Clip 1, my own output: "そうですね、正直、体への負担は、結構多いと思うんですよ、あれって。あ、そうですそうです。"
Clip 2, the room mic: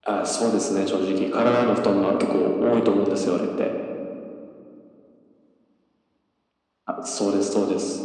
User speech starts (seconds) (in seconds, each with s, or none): none